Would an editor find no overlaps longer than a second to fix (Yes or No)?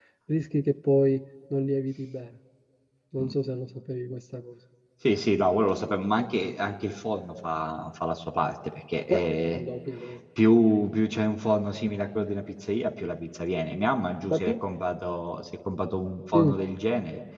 Yes